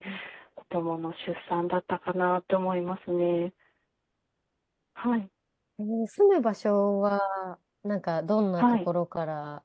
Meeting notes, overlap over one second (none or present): none